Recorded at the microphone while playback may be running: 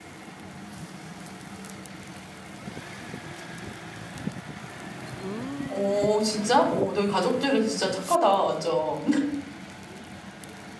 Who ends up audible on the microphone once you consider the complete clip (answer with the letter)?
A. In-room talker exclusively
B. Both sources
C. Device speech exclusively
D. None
A